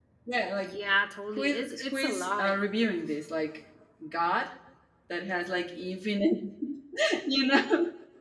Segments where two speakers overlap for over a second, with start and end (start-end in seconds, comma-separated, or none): 1.4-2.6